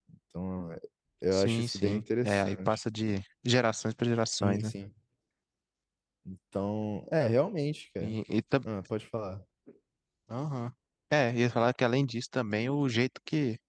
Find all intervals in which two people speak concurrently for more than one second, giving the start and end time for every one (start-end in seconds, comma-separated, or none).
1.3-2.8